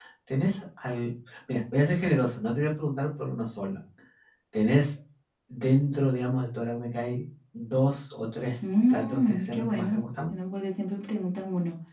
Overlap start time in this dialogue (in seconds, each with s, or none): 8.9 s